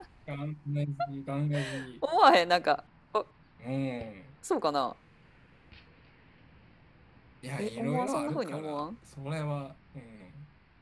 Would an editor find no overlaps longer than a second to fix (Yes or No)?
No